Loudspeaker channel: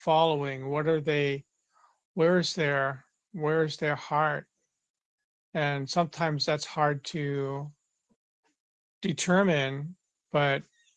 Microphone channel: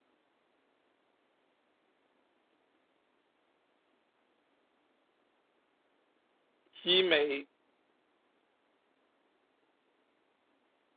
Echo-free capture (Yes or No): Yes